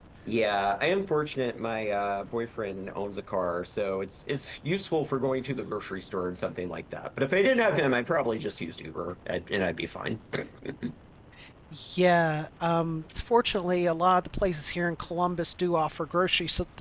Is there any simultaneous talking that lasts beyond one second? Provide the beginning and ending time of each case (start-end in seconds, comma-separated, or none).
none